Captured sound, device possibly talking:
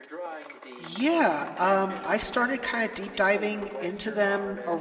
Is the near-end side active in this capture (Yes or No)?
Yes